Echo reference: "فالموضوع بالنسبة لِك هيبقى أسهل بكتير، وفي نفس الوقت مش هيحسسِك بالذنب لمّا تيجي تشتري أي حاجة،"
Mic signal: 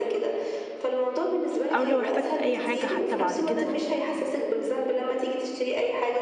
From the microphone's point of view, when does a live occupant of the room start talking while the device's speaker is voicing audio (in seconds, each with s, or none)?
1.7 s